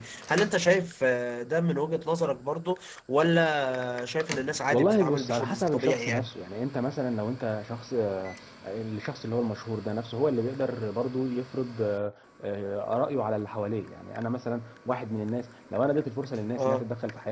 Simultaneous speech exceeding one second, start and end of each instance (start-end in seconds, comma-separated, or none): 4.7-6.3